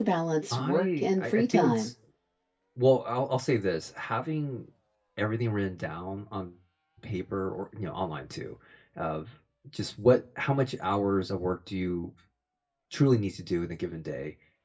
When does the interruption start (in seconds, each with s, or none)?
0.5 s